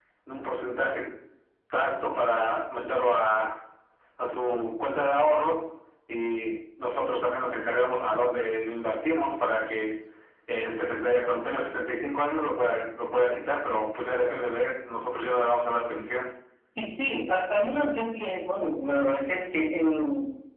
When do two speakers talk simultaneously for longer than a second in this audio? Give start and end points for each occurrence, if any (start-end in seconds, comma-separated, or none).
none